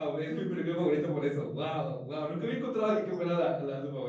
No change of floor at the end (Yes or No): Yes